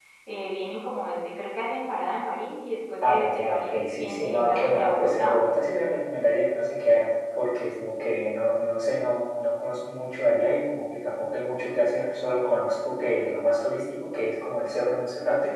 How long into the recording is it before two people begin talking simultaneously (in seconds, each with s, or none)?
3.0 s